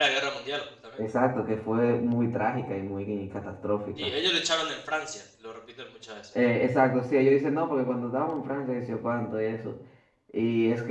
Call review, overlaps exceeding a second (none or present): none